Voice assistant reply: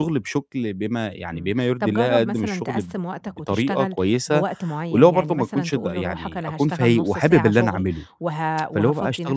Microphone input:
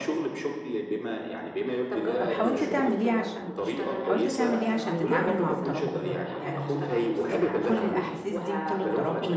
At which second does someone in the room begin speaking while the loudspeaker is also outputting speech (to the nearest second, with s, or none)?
2 s